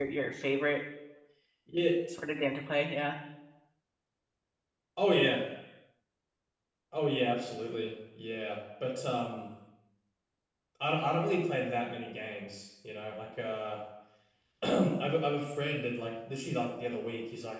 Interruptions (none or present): none